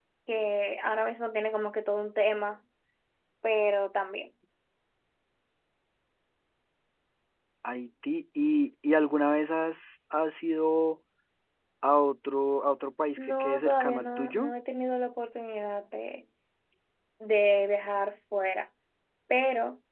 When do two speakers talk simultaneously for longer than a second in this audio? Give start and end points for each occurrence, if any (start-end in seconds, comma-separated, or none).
13.2-14.5